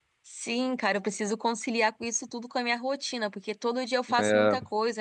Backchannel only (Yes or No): Yes